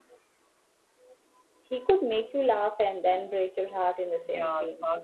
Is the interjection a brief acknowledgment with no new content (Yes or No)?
No